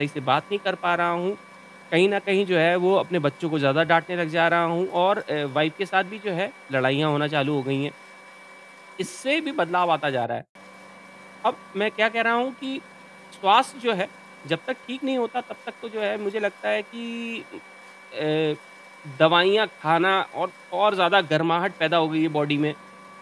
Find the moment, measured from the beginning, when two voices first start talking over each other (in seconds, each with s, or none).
none